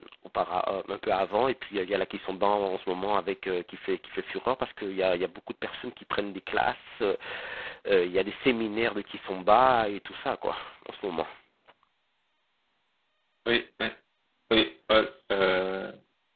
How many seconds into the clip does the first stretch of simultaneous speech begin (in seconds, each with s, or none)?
none